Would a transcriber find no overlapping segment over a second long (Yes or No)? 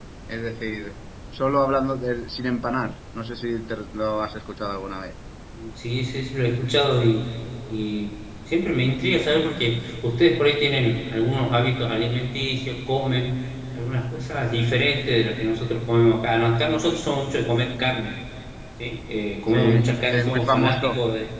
No